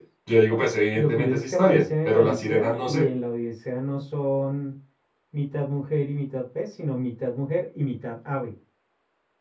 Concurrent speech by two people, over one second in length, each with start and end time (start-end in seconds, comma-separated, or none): 1.0-3.1